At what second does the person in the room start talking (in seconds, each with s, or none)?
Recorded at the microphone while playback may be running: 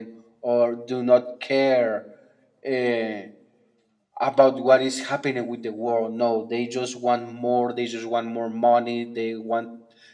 none